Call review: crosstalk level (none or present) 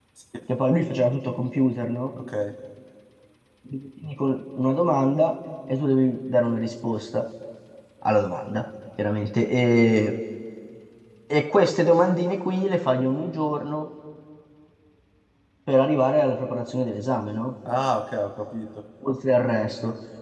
none